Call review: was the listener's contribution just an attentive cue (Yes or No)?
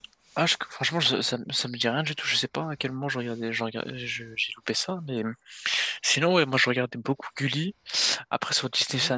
Yes